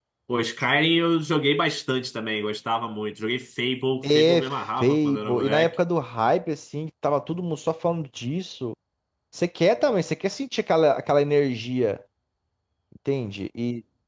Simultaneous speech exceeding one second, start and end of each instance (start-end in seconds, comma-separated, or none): 4.0-5.7